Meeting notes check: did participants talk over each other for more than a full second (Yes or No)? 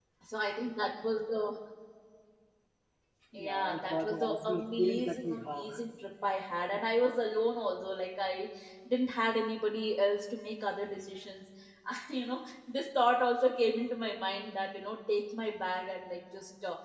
Yes